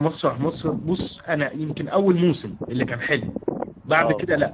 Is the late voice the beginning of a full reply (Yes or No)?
No